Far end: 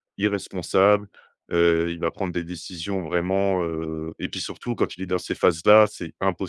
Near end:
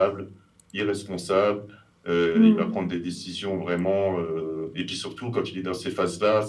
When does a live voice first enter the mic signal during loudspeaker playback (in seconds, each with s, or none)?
2.3 s